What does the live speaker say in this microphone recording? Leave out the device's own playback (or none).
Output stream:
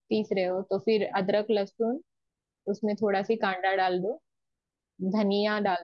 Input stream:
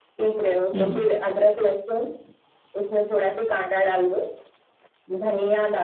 हम्म,